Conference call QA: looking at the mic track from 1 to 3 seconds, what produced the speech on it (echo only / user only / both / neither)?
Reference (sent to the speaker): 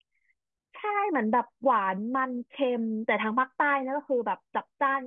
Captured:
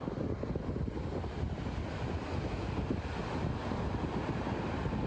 neither